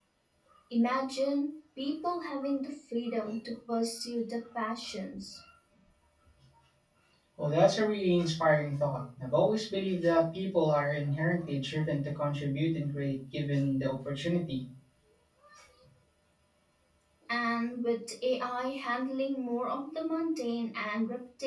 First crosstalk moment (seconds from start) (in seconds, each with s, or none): none